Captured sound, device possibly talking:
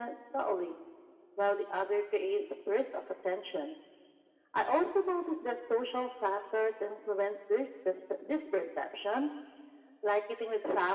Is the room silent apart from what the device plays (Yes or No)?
Yes